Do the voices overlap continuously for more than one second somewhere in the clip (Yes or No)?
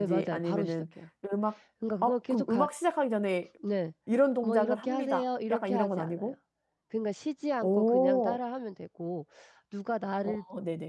Yes